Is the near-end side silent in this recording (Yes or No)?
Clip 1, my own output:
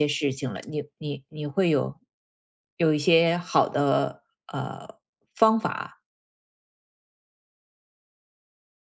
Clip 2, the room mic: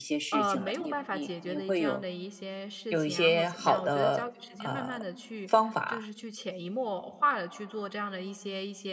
No